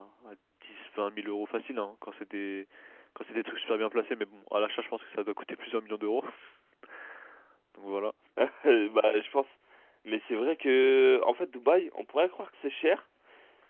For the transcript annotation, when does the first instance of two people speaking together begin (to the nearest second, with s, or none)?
none